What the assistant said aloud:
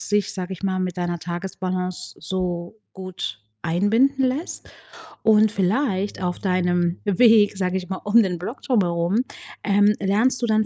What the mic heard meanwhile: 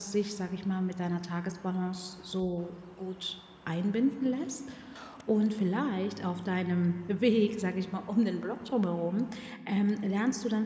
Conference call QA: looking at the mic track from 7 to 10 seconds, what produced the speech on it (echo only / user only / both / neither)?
echo only